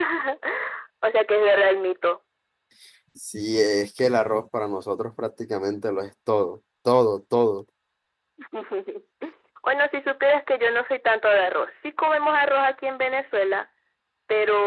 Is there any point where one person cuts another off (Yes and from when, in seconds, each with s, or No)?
No